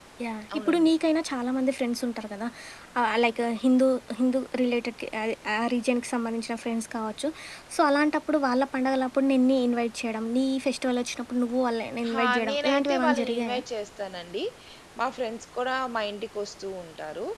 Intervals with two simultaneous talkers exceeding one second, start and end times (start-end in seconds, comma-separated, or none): 12.2-13.6